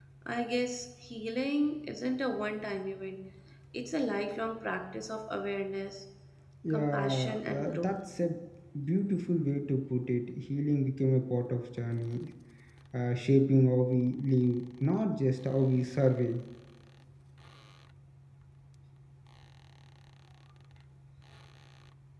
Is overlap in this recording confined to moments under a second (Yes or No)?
No